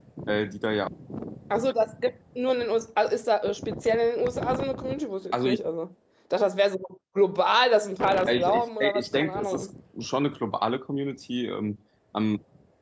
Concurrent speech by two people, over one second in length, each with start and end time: 8.3-9.7

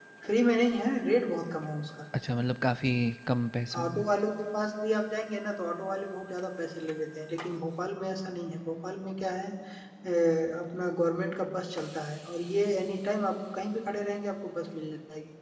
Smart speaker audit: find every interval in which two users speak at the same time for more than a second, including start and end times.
none

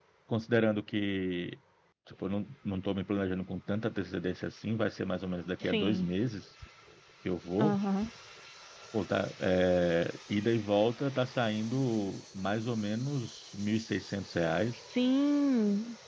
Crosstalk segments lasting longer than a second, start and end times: none

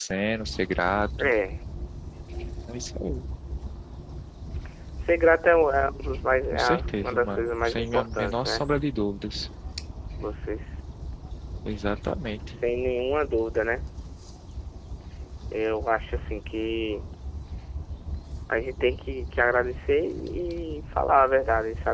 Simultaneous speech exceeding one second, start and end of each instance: 6.5-8.6

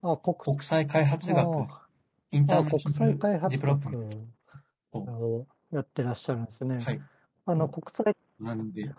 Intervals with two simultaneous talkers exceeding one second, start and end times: 2.6-4.0

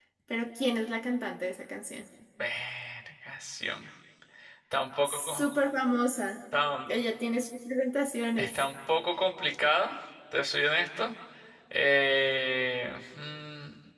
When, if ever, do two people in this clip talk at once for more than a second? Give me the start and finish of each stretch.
none

